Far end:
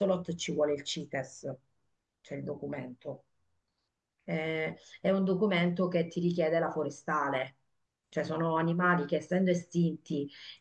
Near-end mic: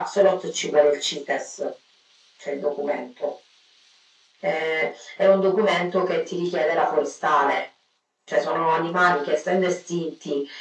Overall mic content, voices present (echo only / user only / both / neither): echo only